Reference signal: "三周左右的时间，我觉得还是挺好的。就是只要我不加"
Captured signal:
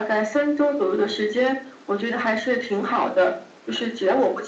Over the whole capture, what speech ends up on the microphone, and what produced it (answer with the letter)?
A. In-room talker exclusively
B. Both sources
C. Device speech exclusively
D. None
C